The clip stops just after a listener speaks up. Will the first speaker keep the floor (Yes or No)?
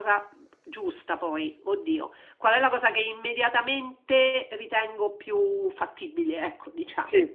No